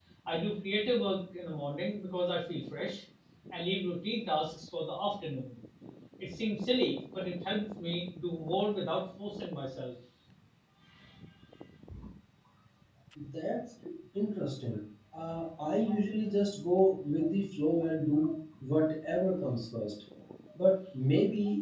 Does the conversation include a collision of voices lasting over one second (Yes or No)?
No